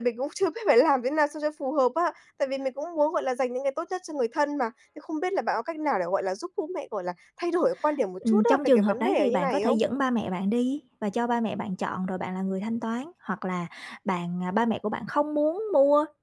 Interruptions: present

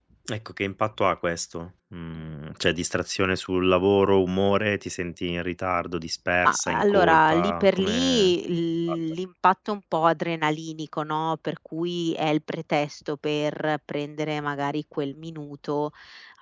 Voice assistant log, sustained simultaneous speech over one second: present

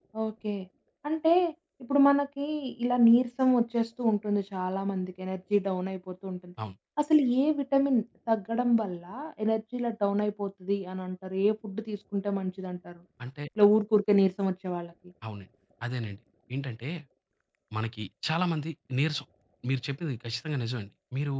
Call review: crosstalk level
none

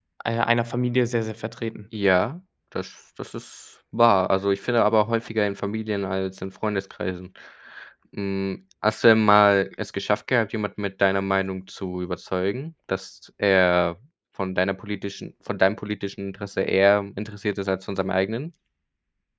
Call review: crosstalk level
none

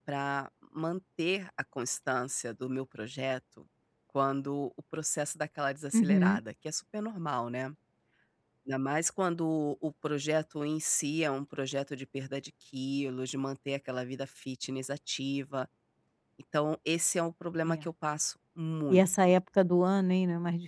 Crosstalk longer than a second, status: none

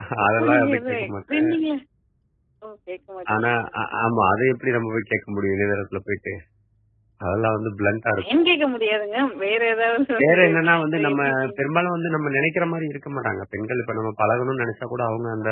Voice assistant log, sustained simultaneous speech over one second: present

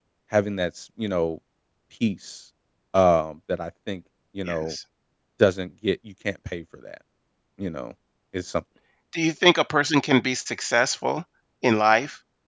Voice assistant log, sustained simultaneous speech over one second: none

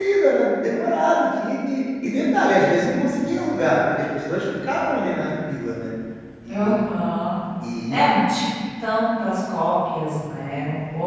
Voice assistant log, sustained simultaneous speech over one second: none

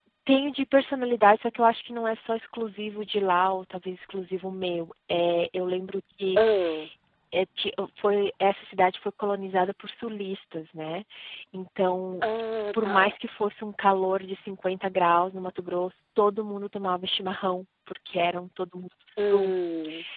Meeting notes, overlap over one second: none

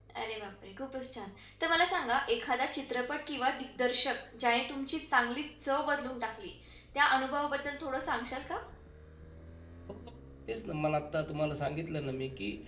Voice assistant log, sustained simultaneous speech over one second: none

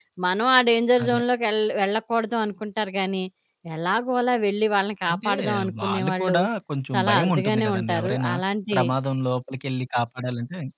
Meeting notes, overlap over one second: present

